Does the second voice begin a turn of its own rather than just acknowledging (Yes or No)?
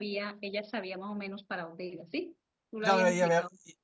Yes